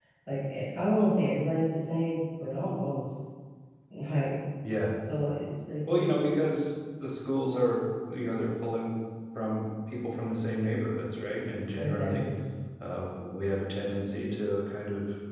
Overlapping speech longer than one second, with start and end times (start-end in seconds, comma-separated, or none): none